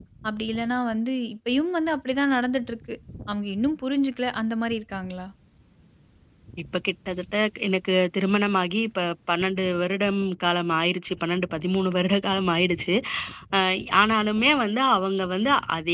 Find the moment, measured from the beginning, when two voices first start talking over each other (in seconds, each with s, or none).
none